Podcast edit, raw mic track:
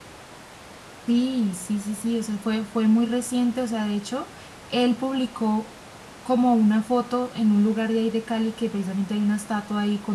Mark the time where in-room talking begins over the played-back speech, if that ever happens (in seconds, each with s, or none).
1.1 s